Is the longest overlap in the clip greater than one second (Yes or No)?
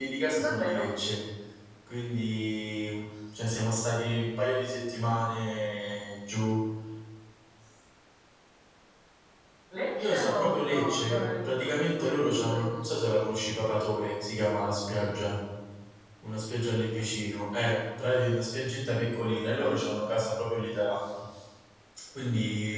Yes